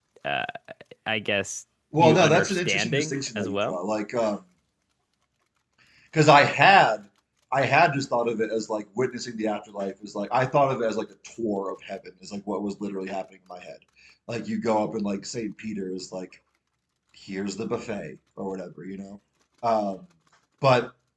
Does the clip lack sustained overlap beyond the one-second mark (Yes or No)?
No